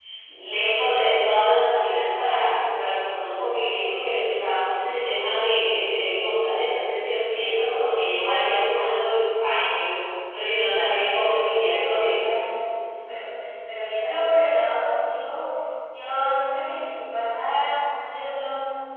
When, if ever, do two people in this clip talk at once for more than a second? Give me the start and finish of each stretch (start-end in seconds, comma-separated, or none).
10.5-12.1